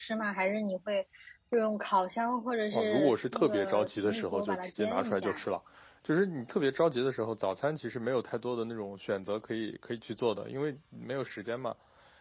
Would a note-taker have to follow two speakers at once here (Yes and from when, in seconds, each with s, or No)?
Yes, from 2.7 s